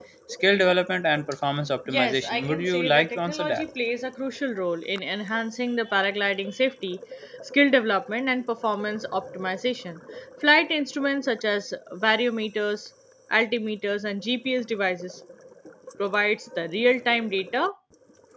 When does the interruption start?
1.9 s

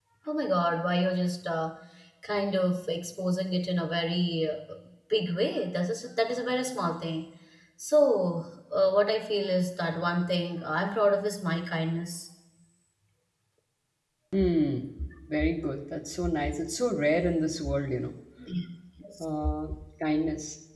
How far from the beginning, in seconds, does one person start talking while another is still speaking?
none

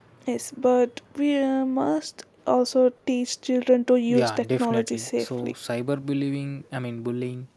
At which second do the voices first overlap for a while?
4.1 s

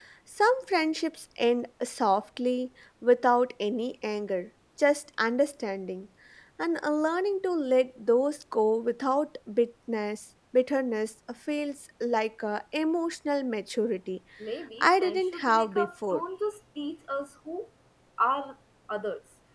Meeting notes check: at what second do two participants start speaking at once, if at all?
14.8 s

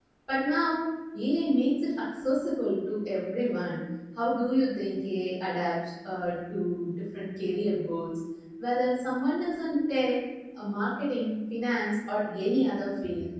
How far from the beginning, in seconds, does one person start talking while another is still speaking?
none

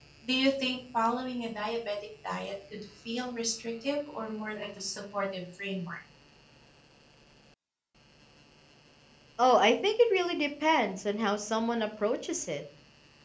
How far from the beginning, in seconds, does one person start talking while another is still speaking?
none

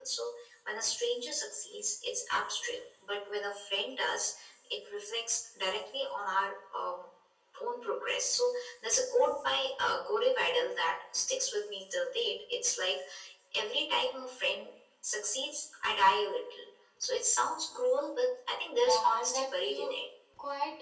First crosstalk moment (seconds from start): 18.7 s

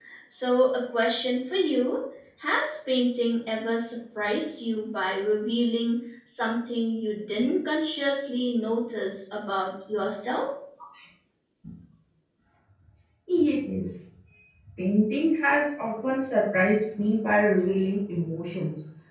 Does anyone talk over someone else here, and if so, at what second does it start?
none

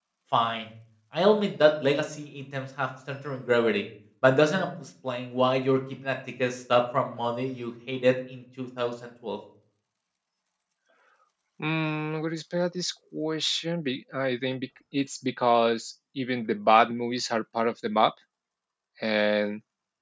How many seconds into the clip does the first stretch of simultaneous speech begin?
none

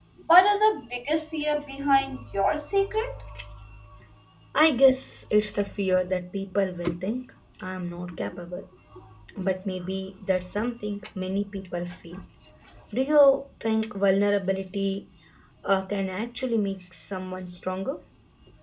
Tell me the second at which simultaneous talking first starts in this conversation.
none

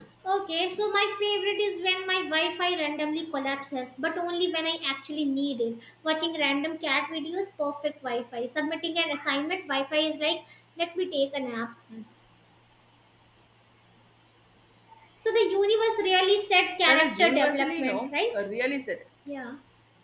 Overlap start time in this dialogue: 16.9 s

